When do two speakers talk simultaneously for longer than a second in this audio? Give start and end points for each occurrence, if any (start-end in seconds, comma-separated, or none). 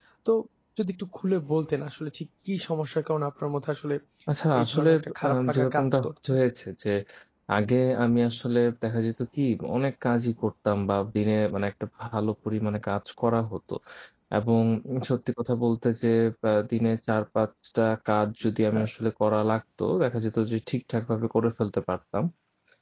4.6-6.3